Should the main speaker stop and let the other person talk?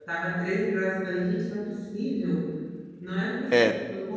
No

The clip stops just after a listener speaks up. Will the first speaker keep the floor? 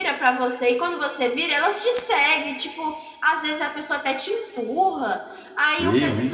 Yes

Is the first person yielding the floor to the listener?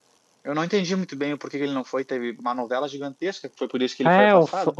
Yes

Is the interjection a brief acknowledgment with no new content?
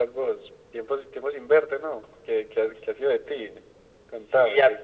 No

